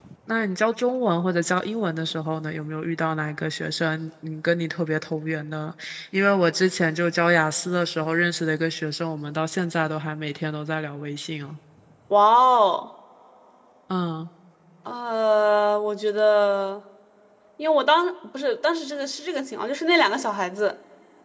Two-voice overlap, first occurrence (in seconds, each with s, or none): none